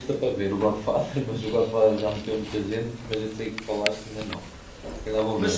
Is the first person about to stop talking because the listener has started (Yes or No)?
Yes